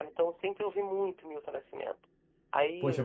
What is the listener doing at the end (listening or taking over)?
taking over